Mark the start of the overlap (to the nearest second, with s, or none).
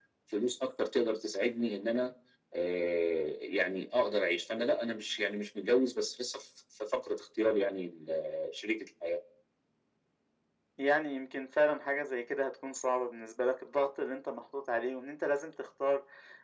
none